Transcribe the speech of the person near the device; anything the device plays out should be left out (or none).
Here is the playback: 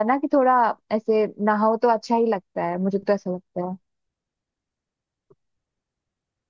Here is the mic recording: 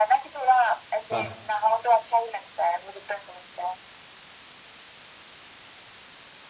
हाँ